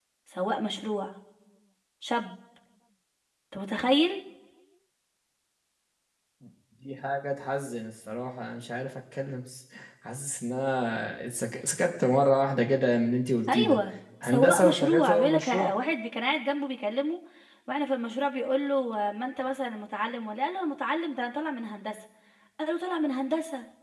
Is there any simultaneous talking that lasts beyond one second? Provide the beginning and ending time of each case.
14.2-15.7

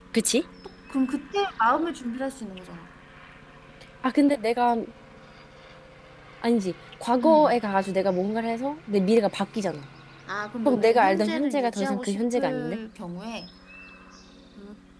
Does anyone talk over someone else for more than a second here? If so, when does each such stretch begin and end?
10.6-12.8

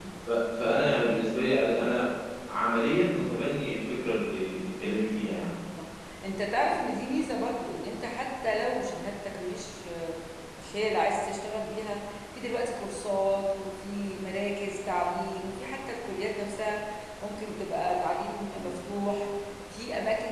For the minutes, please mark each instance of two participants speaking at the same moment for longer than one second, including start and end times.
none

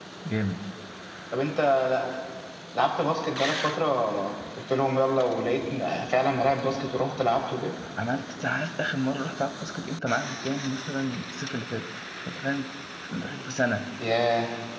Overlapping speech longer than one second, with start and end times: none

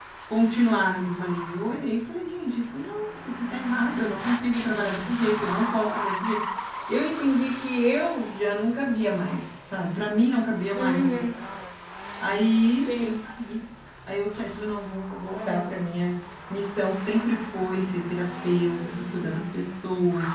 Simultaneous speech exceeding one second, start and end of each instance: none

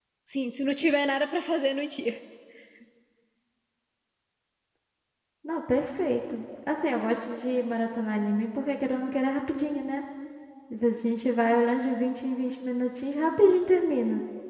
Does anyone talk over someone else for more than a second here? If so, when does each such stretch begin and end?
none

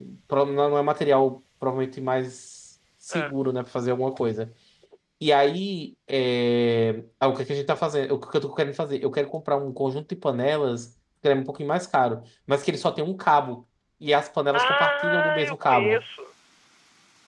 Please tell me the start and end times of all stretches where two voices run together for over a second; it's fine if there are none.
14.5-16.0

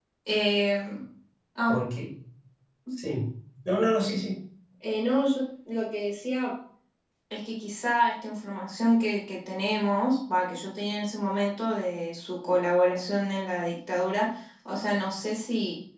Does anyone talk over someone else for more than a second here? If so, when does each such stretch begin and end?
none

